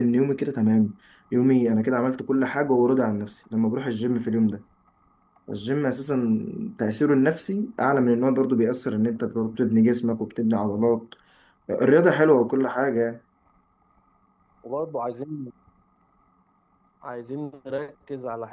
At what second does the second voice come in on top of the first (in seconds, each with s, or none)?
none